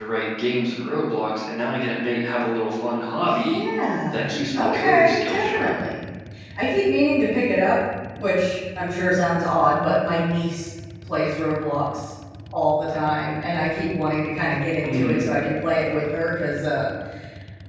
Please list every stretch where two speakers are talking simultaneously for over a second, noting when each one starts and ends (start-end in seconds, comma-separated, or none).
4.1-5.7